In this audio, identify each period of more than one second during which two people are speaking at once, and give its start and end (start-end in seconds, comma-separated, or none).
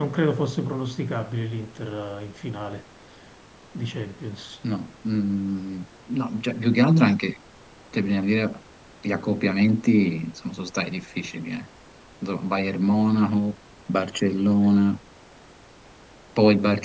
none